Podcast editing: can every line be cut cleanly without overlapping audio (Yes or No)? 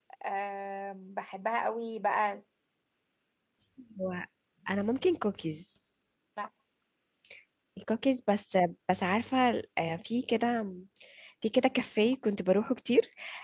Yes